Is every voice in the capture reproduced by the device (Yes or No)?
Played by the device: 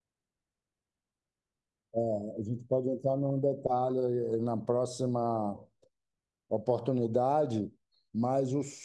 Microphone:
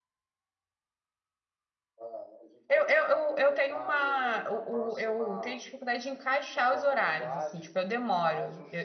No